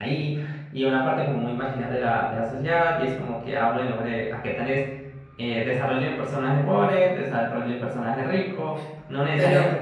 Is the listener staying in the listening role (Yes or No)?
Yes